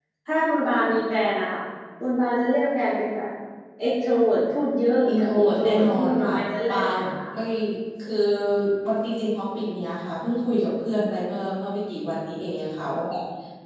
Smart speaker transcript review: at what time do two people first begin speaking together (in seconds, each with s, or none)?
5.1 s